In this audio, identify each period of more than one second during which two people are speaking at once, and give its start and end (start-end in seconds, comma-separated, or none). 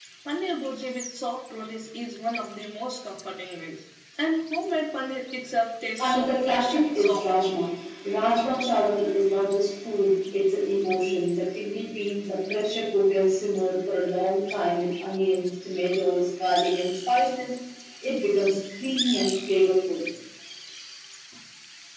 6.0-7.3